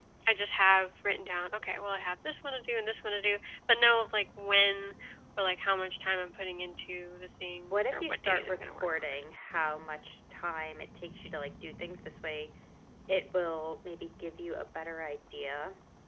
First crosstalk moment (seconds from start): 7.7 s

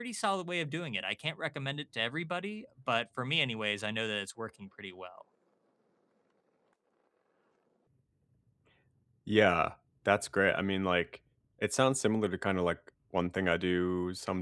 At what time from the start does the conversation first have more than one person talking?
none

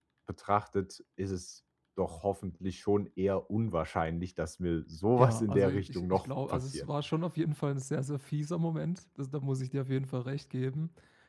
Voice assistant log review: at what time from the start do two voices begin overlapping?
5.2 s

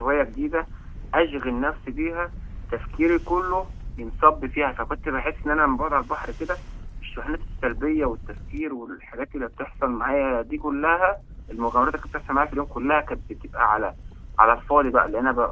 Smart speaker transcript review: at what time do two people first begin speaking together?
none

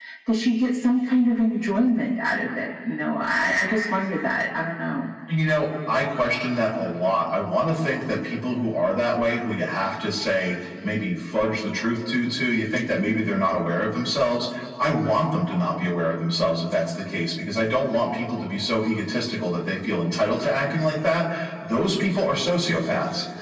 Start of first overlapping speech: none

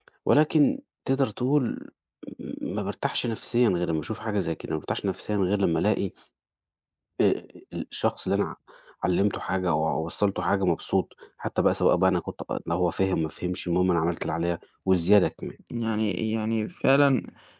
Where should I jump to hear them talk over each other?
none

